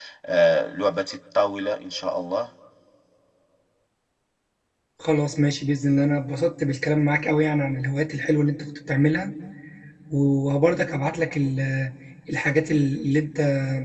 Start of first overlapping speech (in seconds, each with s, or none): none